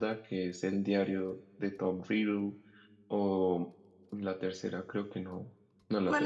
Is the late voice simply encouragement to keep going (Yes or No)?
No